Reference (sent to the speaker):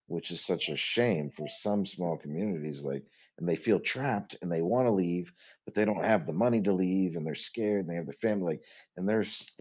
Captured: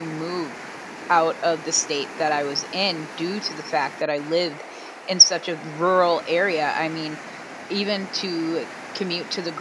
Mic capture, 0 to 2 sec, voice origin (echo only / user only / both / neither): user only